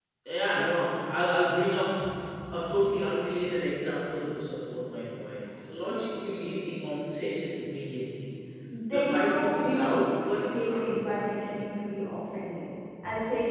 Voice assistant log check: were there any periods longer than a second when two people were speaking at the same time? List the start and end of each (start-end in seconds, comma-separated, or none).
8.9-11.4